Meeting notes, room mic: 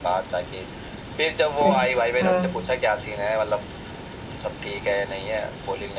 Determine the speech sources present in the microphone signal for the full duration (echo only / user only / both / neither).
both